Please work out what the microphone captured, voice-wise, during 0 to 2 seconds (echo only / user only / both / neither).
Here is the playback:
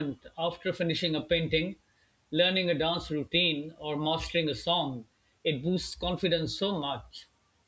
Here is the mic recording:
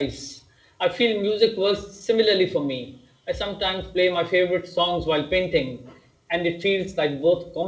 user only